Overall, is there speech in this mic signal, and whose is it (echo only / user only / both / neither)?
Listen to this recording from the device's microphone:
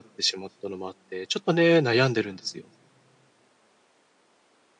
echo only